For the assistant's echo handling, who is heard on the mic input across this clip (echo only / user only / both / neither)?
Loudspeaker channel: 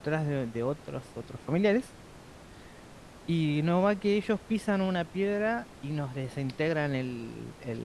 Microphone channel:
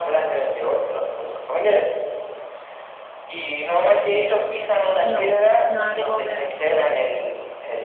both